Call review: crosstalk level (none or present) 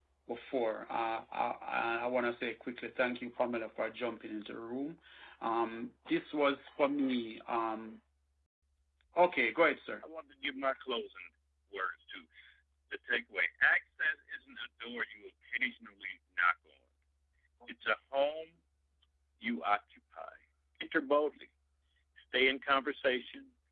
none